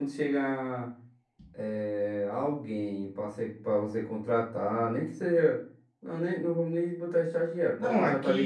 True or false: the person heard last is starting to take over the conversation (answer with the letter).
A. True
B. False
A